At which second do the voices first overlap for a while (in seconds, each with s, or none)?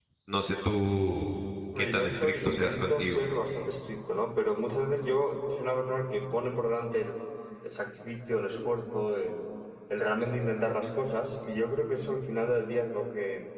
1.7 s